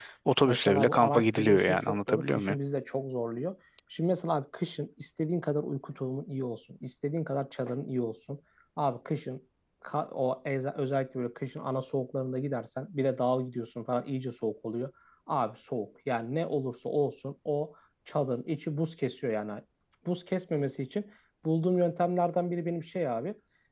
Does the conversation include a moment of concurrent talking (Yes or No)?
Yes